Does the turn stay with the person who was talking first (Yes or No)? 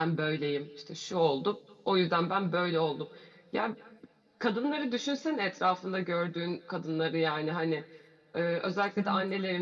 Yes